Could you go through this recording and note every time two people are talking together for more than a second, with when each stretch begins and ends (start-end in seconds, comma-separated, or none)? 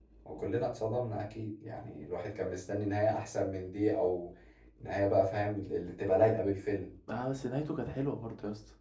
none